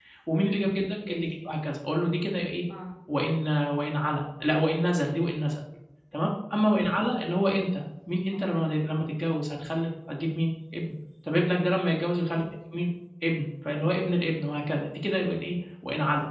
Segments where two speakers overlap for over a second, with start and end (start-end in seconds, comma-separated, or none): none